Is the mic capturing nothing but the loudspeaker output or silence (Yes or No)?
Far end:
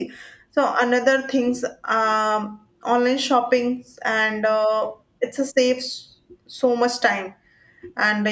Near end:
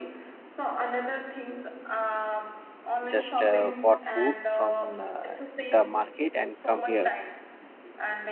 No